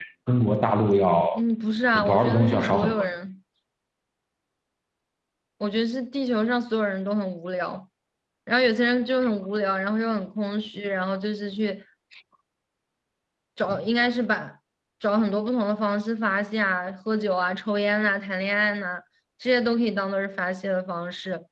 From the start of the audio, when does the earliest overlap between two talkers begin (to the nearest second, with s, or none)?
2 s